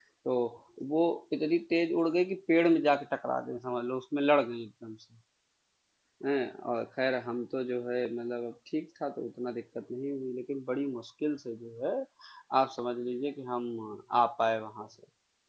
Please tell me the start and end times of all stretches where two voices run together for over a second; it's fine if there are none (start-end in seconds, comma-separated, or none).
none